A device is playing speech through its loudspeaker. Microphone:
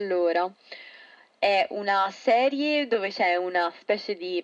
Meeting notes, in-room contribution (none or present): none